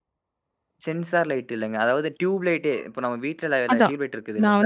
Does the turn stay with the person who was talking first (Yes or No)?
No